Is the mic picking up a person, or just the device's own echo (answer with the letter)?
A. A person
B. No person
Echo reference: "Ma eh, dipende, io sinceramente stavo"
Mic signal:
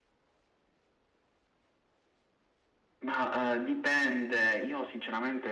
B